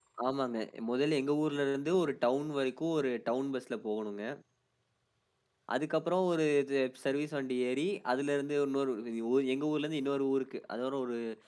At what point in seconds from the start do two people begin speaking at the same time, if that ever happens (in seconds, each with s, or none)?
none